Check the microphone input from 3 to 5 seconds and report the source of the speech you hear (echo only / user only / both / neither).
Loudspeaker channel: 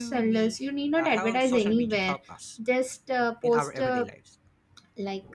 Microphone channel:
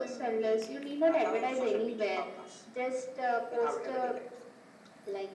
echo only